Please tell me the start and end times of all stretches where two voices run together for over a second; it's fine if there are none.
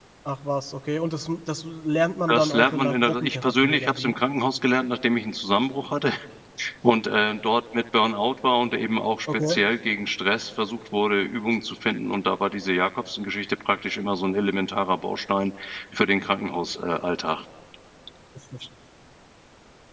2.3-4.1

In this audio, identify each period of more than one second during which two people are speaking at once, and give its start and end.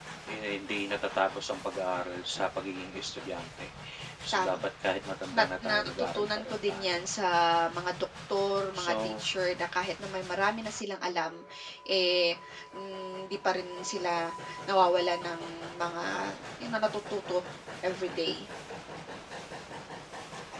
5.3-7.1

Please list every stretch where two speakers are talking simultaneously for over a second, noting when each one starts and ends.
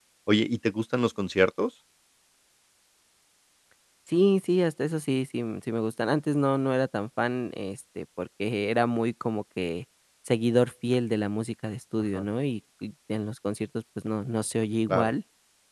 none

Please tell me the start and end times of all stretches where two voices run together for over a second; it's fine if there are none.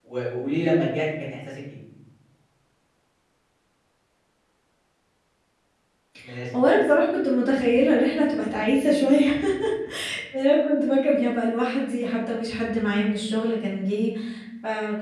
none

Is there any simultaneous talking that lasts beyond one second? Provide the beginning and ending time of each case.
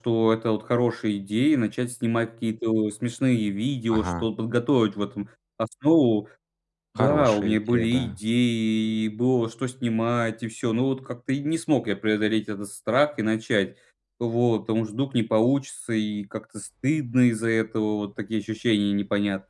7.0-8.2

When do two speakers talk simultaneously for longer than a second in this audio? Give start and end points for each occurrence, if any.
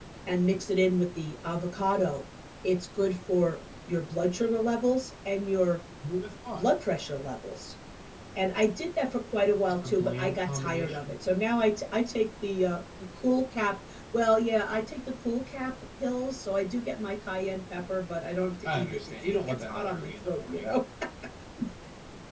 9.7-11.1, 18.6-20.7

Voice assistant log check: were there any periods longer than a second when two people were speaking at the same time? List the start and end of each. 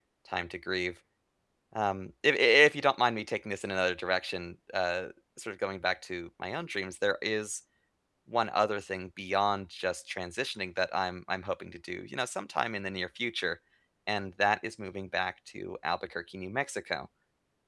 none

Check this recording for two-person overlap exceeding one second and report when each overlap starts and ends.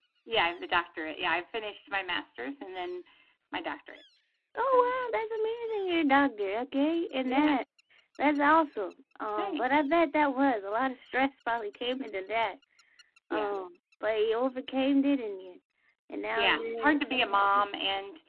16.3-17.7

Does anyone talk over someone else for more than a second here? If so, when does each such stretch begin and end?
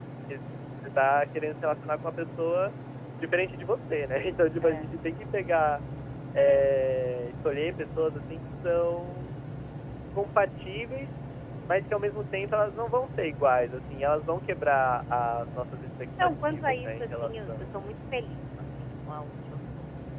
16.2-17.7

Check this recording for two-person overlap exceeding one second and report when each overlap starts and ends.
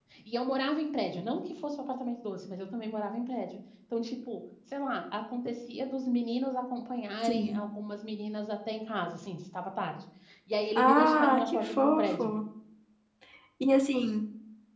10.8-12.3

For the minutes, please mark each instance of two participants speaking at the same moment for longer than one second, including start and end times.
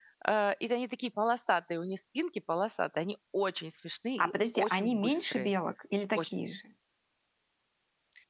4.2-5.5

